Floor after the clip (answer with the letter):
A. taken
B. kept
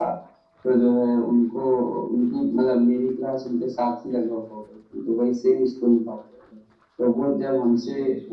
B